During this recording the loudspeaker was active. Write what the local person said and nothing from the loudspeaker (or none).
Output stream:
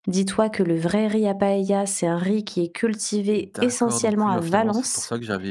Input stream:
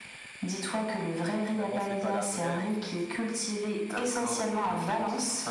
mais finalement c'est pas la vraie, en fait.